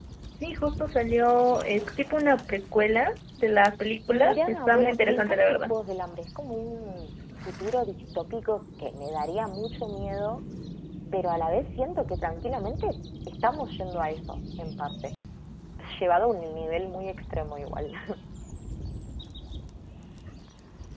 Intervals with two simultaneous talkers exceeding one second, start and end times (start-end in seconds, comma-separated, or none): 4.1-5.8